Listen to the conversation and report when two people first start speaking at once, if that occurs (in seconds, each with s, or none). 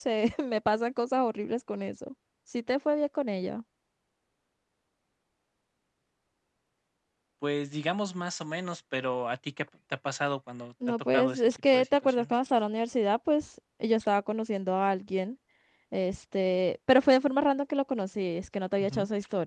10.9 s